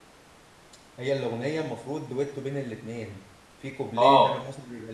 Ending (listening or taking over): listening